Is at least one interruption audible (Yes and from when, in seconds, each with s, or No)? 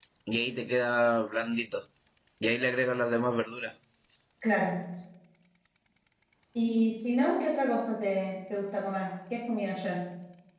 No